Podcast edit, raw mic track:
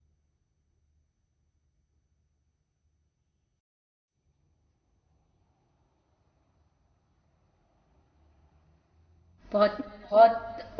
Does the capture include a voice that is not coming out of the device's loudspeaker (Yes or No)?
Yes